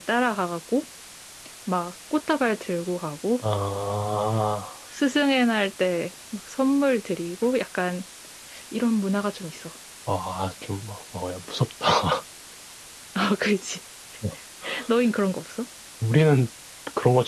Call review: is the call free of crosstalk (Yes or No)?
Yes